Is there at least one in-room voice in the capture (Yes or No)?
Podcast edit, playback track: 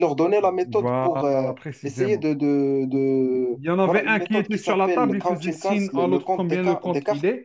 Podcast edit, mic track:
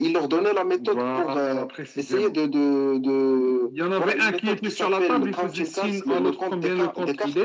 No